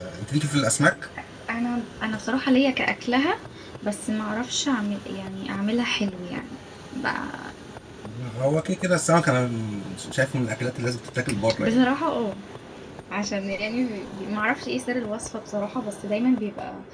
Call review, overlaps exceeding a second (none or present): none